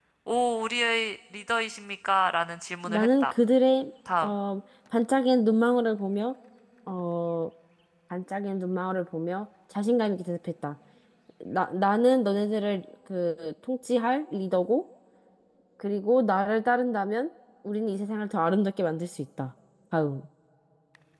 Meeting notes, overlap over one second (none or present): none